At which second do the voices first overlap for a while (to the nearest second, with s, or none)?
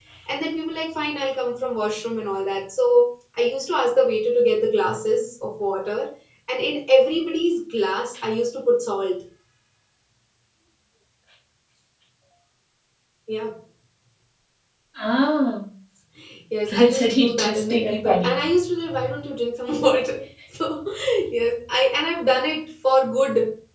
17 s